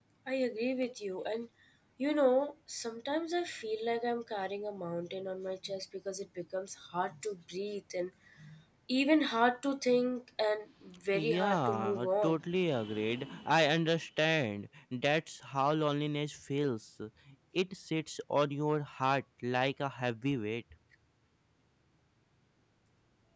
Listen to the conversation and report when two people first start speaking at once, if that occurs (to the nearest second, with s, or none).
11 s